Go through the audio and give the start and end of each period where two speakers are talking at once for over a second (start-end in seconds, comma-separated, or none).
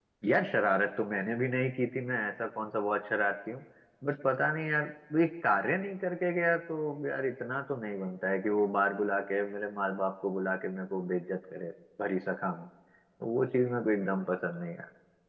none